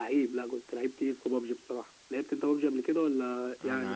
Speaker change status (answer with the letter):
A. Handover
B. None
A